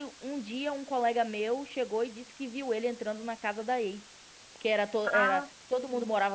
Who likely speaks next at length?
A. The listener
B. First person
B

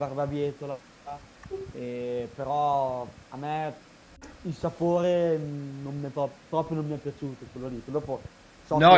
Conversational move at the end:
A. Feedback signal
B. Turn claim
B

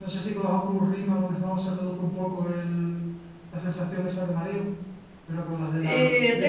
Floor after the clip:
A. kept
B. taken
B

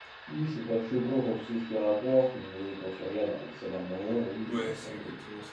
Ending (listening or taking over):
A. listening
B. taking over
B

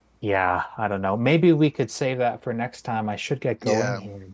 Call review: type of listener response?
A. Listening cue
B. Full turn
A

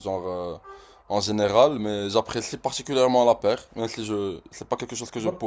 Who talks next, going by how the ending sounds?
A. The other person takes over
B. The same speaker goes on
A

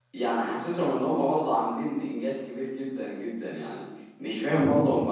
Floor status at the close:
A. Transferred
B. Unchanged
B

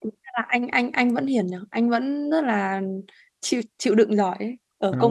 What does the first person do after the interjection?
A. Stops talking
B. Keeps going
B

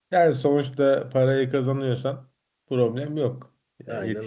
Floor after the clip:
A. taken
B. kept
B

